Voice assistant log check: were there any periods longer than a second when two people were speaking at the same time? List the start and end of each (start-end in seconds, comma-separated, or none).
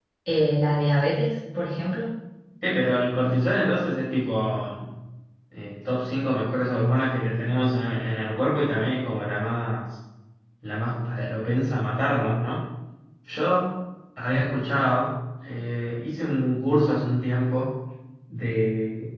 none